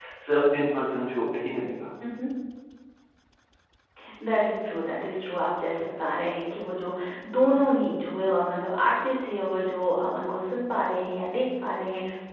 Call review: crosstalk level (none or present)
none